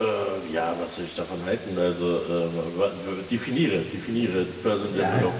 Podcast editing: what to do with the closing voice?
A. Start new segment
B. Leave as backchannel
A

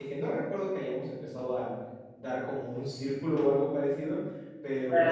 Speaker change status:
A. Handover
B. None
B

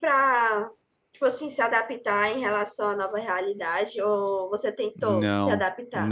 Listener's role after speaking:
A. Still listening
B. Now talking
B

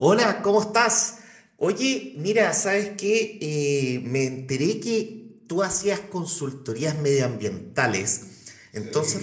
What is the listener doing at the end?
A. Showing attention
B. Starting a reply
A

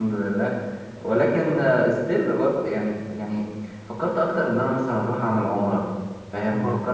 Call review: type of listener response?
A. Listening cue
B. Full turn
A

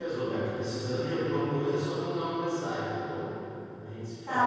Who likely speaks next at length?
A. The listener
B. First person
A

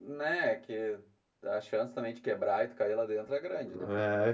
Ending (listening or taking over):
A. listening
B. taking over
B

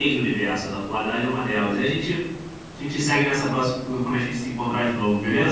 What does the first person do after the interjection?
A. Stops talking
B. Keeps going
A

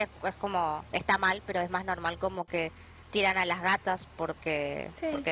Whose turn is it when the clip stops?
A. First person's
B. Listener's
A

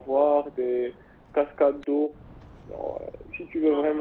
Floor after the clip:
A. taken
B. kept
B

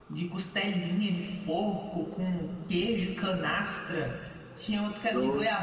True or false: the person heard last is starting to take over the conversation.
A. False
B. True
A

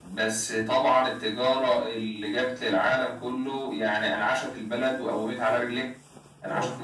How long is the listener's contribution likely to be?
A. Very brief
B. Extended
A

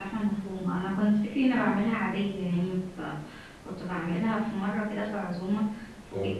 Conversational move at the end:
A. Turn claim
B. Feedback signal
B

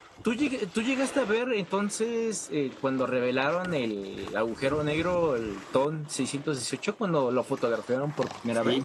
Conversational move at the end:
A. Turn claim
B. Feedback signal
A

